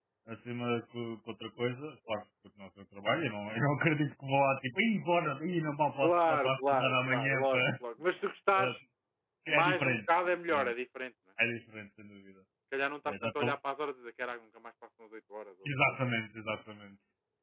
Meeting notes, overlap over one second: present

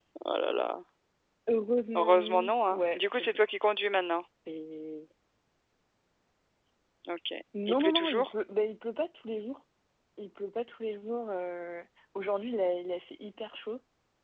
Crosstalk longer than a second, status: present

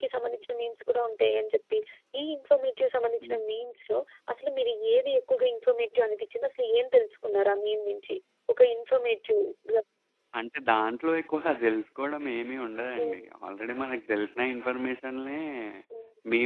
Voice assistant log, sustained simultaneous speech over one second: none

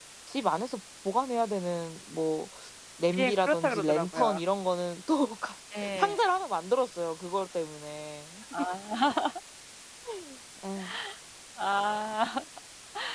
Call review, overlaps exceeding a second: present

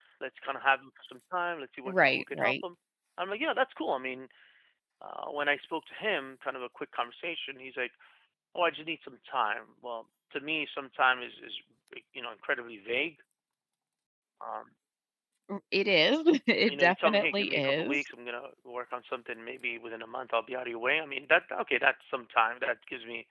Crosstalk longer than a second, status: present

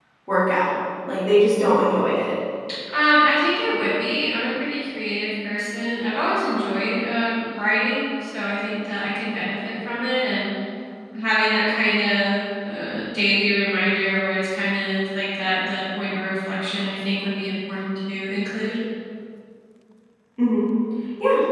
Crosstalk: none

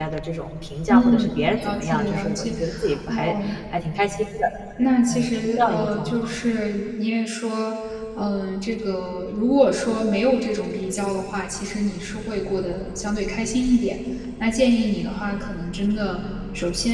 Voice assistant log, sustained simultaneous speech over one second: present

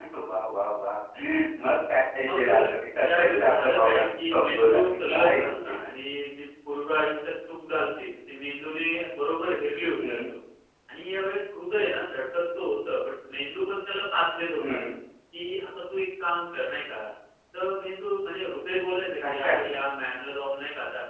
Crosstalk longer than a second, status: present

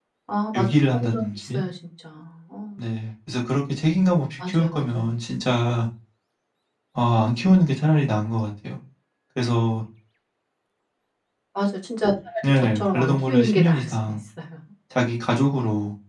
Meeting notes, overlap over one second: present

